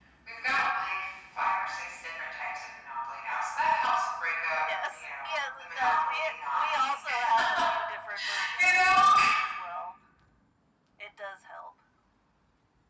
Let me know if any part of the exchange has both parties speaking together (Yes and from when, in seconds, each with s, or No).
Yes, from 4.5 s